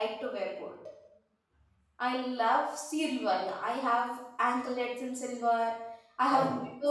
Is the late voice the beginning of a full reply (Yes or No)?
No